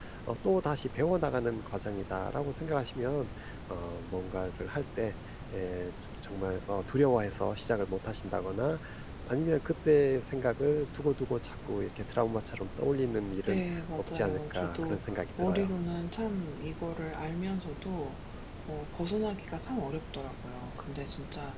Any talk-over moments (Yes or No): Yes